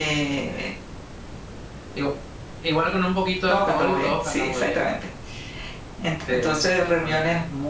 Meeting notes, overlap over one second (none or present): present